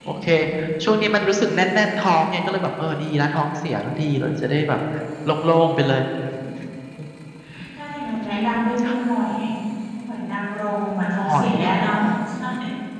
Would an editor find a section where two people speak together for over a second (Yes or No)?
No